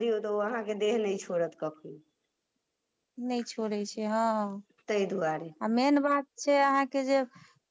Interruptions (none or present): none